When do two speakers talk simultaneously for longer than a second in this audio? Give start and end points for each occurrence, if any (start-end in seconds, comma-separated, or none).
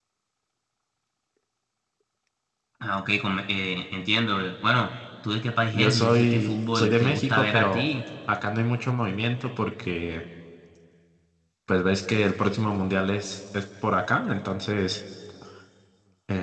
5.7-7.9